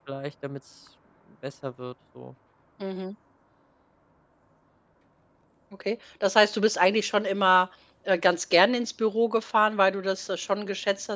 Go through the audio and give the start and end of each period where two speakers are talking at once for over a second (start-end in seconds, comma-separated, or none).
none